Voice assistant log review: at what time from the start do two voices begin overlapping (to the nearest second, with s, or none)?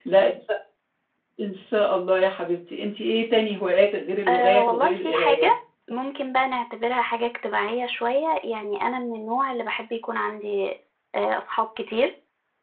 4 s